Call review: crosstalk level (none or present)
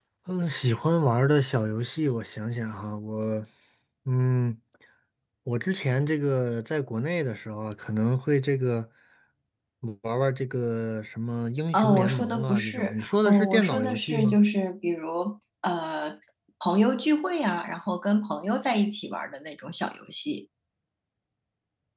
present